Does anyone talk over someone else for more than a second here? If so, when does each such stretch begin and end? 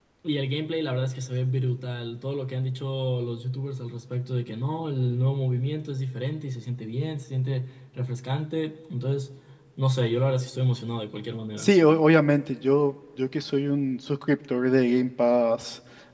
none

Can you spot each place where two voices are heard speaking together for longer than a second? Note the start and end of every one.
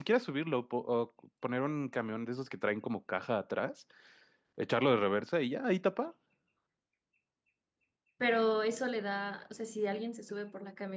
none

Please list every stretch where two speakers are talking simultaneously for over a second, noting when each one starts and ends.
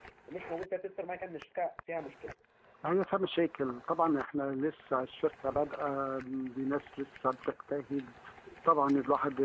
none

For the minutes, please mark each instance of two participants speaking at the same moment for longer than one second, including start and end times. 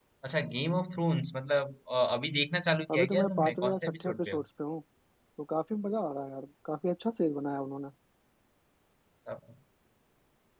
2.9-4.4

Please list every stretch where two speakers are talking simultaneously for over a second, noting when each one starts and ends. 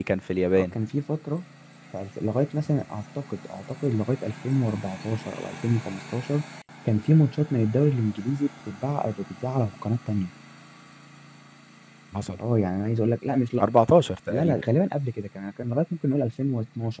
none

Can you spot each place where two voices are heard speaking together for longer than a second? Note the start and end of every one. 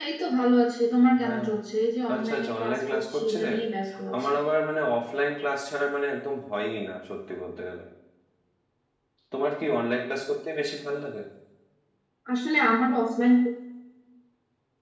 2.1-3.5

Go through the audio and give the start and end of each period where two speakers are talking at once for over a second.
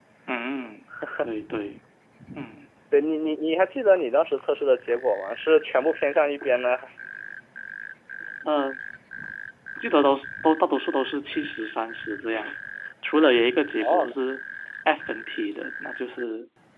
none

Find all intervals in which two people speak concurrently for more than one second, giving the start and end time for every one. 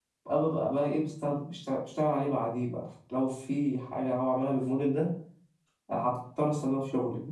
none

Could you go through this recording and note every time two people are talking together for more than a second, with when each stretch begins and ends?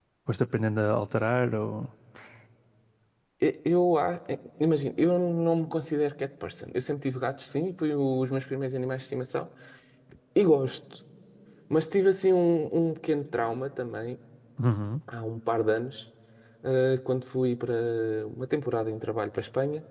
none

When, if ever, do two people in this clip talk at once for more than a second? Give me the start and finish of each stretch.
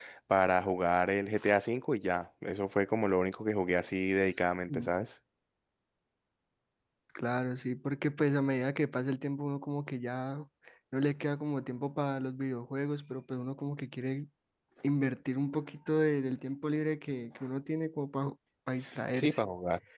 none

